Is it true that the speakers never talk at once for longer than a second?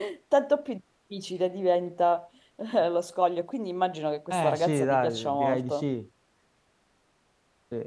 No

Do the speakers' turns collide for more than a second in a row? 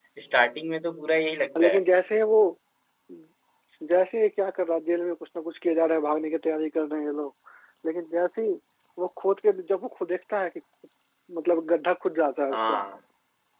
No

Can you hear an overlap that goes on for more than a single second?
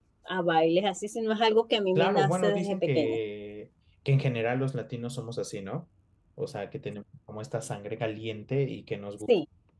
Yes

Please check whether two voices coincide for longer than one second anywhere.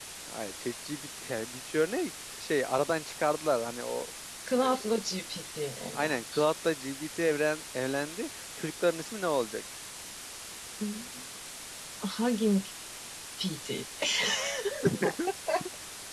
No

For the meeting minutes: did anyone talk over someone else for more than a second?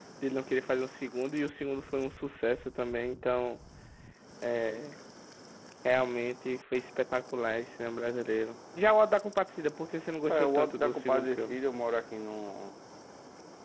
Yes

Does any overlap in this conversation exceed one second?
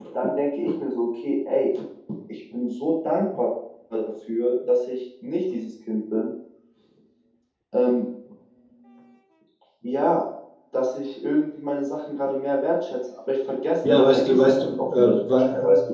Yes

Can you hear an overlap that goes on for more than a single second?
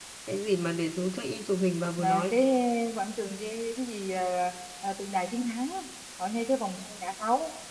No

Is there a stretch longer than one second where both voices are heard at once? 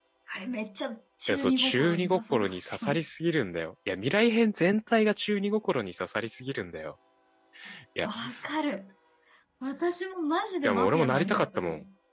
Yes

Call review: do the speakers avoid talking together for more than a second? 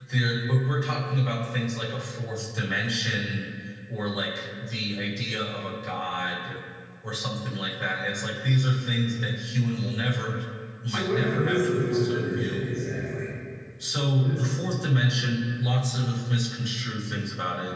No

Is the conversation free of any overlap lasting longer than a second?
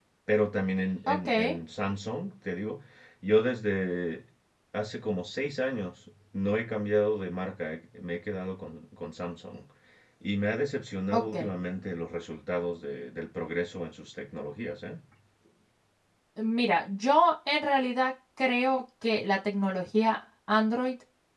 Yes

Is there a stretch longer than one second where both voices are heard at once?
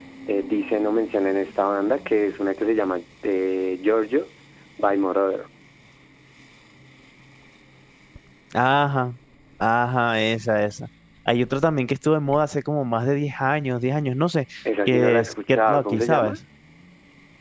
Yes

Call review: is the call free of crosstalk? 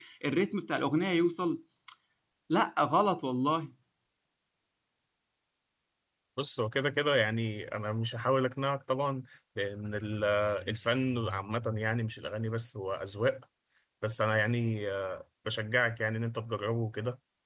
Yes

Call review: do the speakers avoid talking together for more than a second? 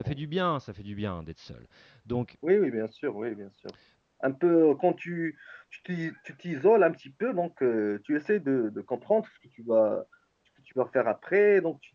Yes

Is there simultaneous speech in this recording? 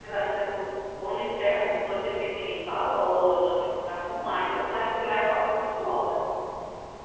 No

